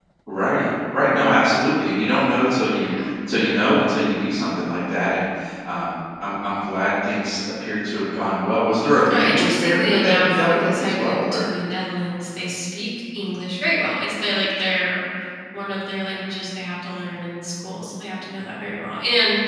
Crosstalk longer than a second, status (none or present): present